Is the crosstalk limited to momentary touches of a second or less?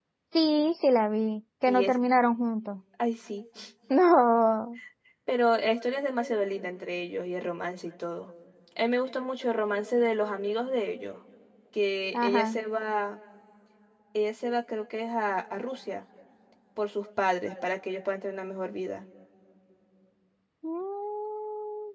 Yes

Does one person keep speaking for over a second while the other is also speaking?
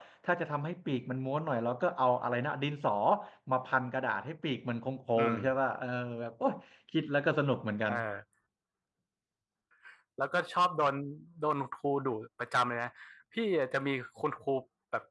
No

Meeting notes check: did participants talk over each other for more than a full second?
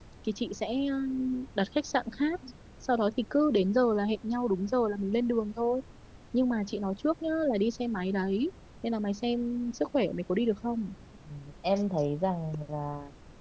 No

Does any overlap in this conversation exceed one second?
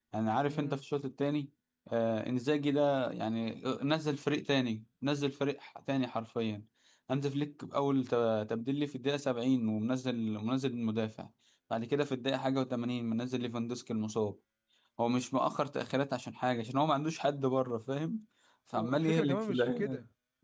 Yes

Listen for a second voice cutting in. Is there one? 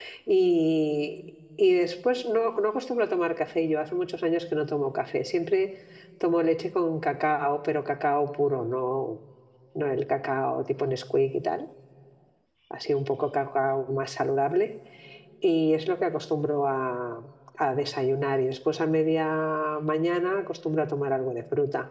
No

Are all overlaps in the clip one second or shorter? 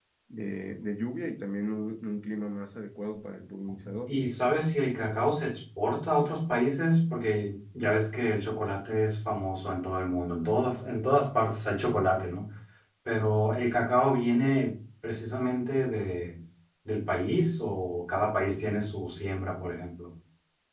Yes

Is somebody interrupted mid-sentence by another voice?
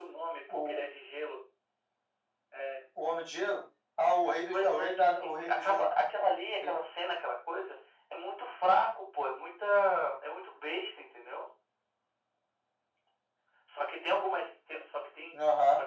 Yes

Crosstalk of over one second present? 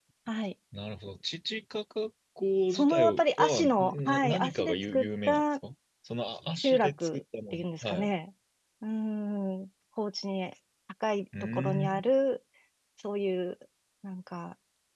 Yes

